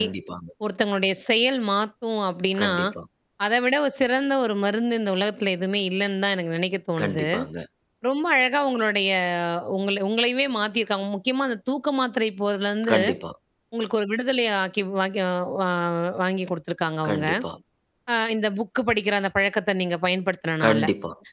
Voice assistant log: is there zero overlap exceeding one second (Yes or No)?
Yes